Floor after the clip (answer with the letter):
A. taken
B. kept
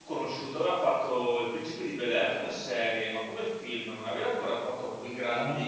A